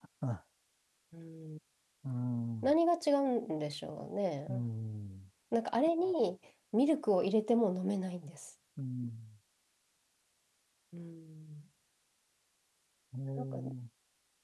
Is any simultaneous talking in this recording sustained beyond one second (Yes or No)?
No